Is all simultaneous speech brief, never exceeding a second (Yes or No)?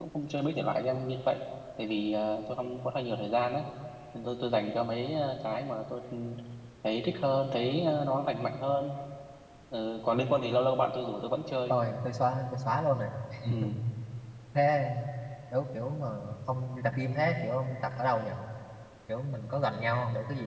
Yes